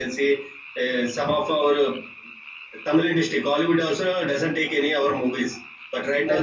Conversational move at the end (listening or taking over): listening